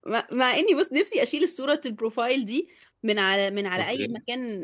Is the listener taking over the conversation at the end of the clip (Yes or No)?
No